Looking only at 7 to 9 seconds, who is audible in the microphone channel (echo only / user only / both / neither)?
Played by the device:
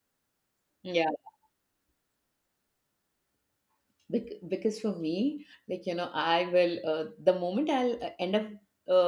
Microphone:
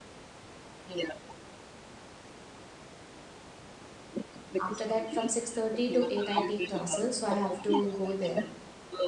both